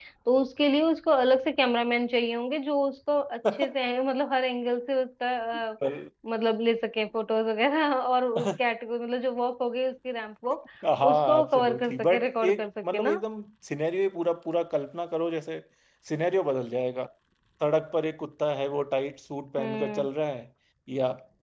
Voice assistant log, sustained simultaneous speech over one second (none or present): present